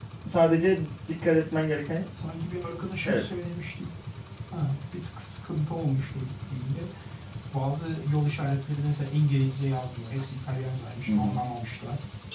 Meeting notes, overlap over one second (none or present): none